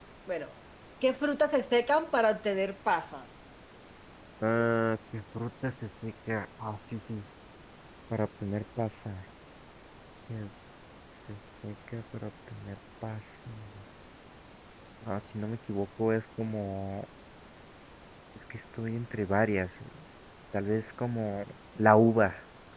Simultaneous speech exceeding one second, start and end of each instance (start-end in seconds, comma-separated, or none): none